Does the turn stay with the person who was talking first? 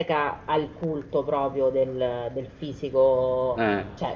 Yes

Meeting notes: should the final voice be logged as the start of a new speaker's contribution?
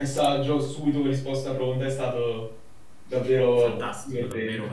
Yes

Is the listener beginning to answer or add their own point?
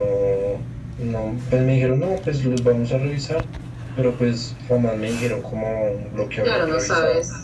Yes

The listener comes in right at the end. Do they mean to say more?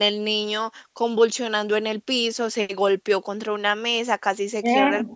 No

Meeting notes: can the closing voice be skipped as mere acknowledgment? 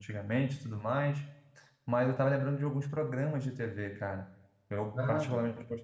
Yes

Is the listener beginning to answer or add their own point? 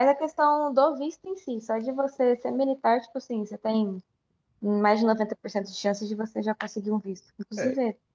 Yes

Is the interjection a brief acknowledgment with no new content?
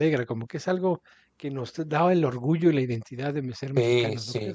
No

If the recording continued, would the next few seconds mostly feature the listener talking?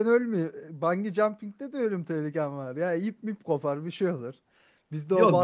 Yes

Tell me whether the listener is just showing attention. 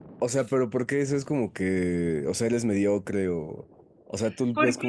Yes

